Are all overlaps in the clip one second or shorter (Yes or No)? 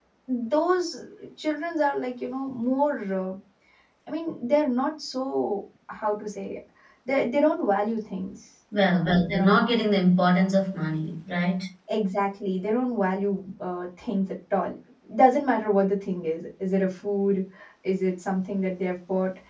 Yes